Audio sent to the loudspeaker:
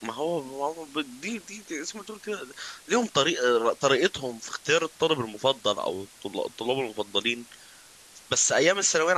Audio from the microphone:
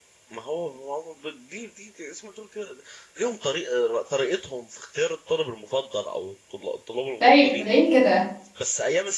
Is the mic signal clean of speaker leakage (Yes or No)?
No